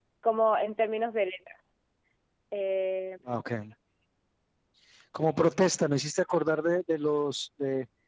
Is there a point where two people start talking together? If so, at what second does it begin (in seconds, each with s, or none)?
none